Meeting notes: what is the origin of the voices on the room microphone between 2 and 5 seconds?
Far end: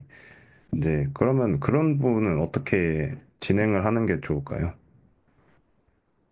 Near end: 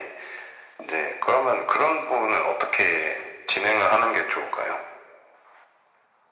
echo only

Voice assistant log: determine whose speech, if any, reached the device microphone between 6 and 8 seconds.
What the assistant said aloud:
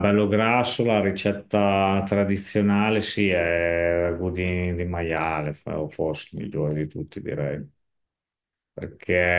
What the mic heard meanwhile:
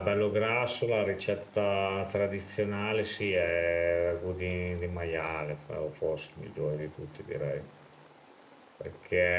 echo only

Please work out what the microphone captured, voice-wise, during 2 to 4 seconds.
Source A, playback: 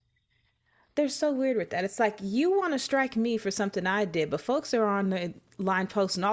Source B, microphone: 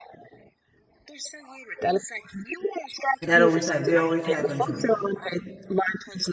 both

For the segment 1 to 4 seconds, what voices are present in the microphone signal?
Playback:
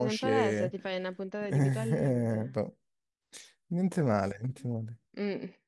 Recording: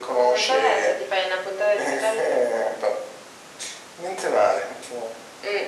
echo only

